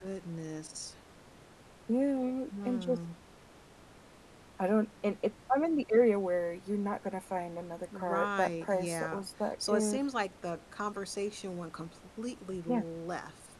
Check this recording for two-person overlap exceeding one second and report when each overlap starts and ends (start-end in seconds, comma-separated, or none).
8.0-10.0